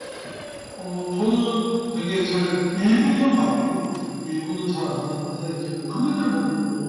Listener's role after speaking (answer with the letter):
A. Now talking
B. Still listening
B